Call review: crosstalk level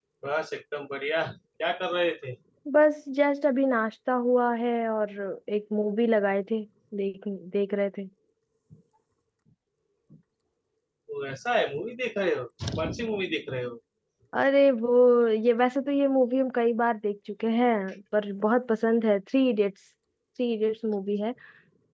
none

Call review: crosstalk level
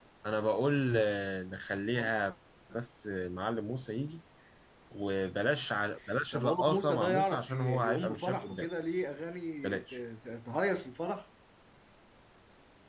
present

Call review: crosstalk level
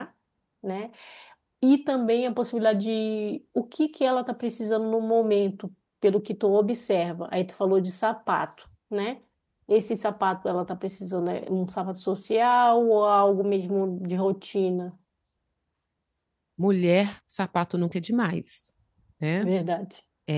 none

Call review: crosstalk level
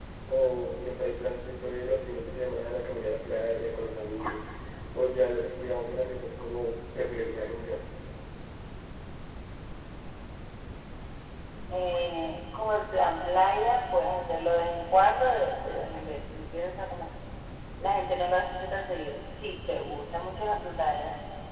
none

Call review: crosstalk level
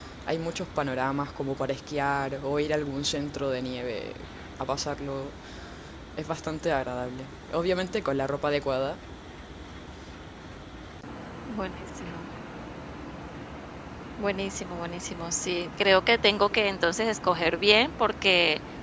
none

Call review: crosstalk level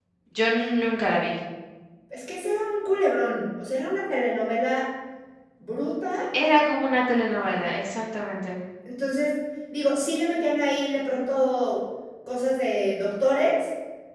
none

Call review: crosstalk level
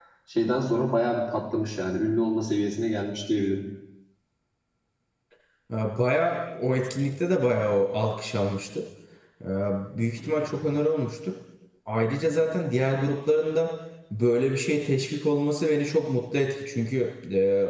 none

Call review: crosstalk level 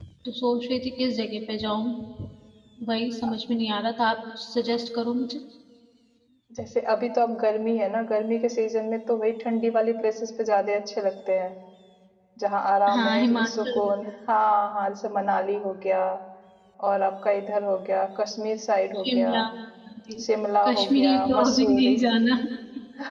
present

